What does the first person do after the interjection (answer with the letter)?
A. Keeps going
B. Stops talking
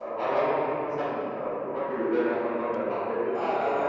B